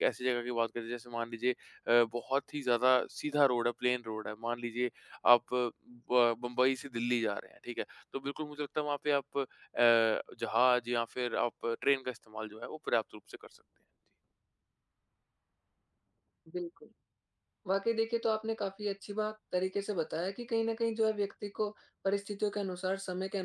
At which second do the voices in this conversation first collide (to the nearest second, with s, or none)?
none